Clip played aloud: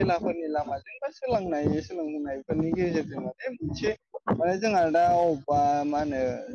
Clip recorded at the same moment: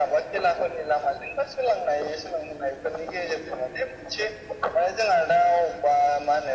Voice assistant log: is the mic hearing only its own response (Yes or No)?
Yes